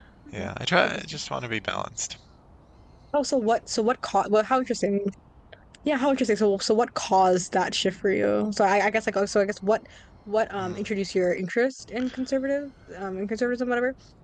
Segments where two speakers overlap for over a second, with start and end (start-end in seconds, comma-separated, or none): none